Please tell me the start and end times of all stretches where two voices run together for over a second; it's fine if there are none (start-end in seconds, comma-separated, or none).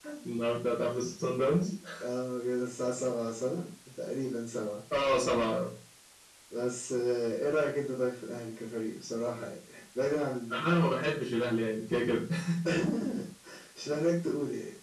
none